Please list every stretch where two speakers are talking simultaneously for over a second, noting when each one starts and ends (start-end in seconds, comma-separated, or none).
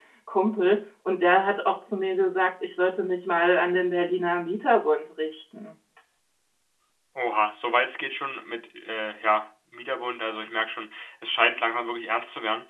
none